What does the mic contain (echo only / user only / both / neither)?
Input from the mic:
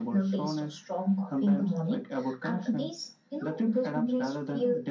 echo only